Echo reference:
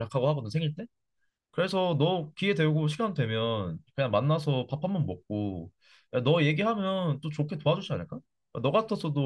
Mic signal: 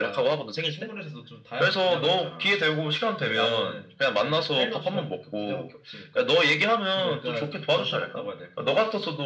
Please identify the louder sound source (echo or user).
echo